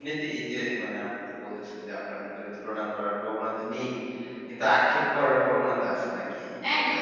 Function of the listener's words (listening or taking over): taking over